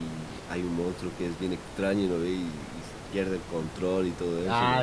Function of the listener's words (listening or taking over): taking over